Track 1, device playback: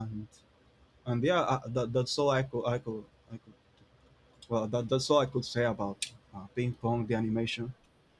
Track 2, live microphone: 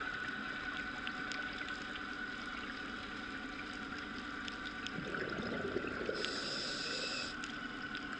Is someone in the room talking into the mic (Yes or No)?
No